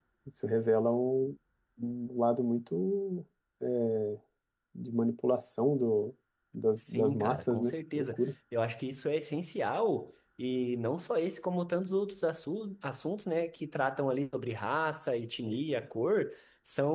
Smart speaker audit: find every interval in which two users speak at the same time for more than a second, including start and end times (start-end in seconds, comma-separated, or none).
6.9-8.2